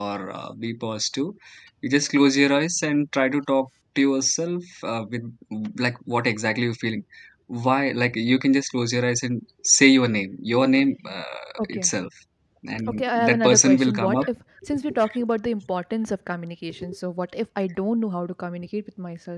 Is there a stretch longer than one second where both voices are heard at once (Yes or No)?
Yes